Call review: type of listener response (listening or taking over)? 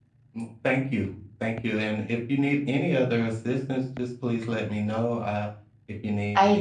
taking over